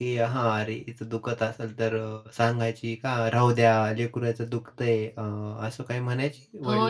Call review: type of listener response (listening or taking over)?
taking over